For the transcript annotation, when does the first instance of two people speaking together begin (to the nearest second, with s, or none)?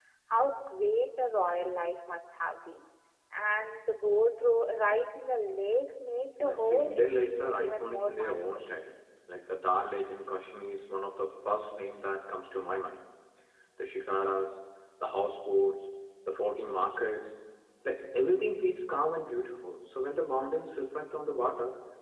6 s